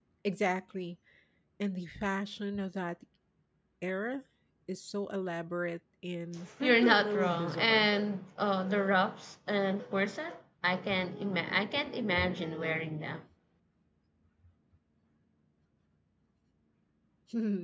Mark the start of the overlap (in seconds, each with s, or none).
6.6 s